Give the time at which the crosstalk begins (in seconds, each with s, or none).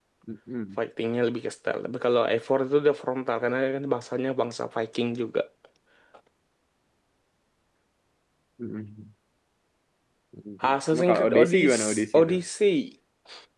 10.6 s